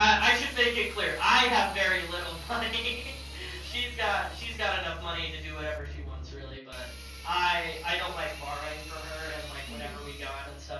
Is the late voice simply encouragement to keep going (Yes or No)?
Yes